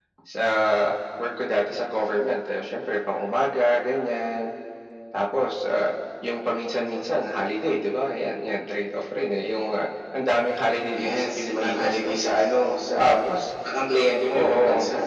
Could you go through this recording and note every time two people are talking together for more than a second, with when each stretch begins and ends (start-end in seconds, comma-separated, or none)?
11.0-12.2